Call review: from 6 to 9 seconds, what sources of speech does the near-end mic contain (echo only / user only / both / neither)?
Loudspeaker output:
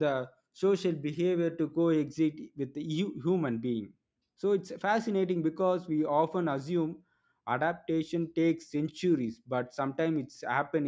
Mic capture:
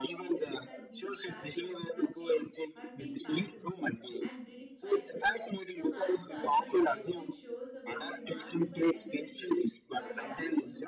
both